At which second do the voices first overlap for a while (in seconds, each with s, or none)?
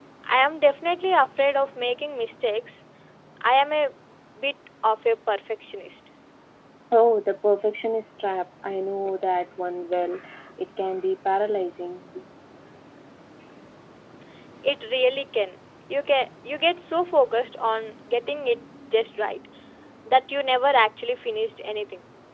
none